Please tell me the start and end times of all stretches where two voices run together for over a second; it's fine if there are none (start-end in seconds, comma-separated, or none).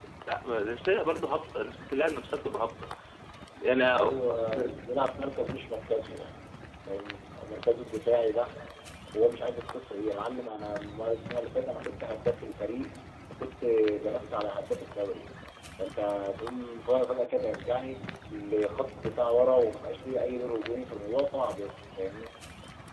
none